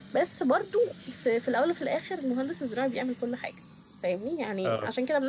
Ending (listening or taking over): listening